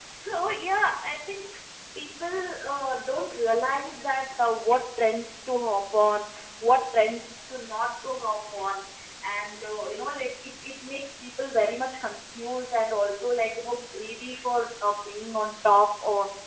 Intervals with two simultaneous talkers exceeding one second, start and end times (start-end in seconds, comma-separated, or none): none